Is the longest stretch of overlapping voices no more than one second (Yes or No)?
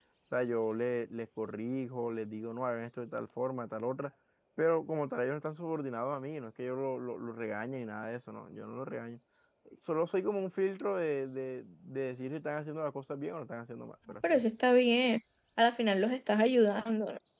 Yes